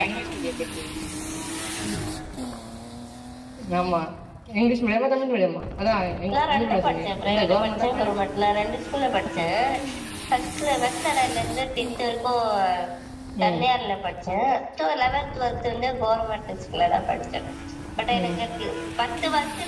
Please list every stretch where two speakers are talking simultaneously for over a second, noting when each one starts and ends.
6.3-8.3

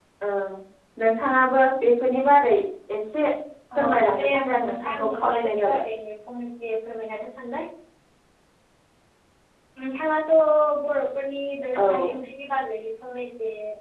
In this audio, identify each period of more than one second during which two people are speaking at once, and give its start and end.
3.8-5.8

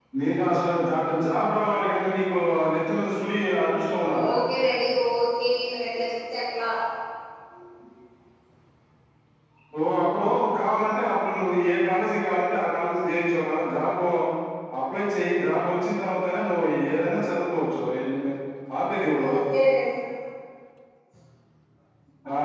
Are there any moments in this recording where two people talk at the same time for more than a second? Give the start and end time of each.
none

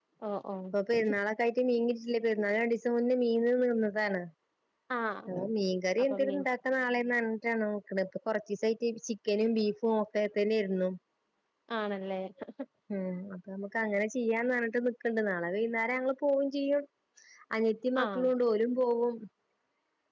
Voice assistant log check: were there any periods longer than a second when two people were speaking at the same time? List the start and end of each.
none

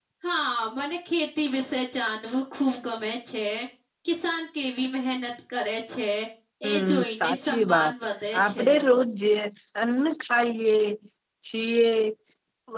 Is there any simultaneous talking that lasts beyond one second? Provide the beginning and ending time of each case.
6.7-7.9

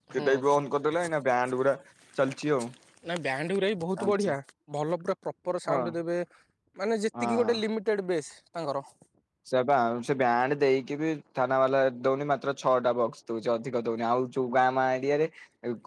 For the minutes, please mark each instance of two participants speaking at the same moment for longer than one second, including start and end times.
none

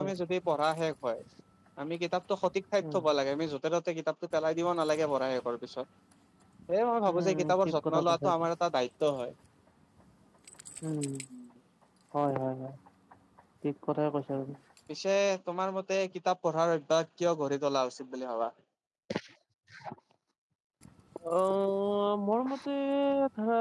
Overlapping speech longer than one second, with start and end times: 7.1-8.3

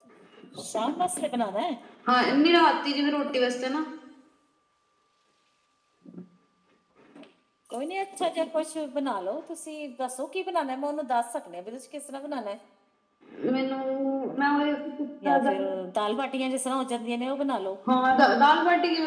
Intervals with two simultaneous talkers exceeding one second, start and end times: none

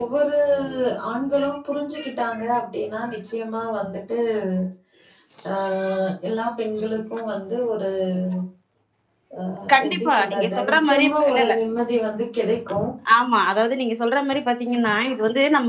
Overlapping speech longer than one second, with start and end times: 9.8-11.5

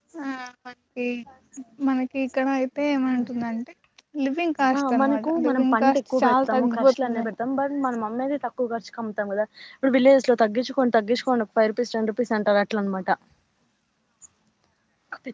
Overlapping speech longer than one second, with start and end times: 4.8-7.2

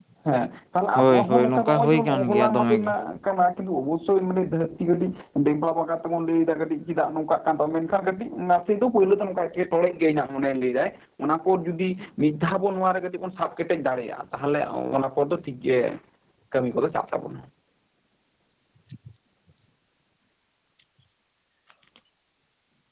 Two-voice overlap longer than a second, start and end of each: 0.9-2.9

